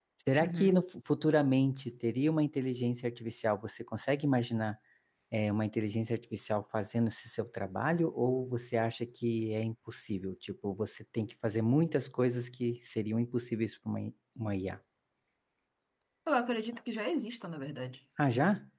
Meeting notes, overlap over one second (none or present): none